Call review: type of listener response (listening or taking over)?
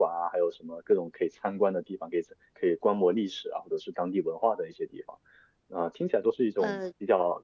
listening